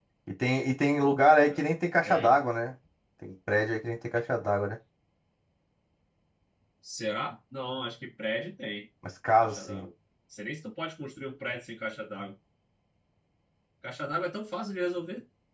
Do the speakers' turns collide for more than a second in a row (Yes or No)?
No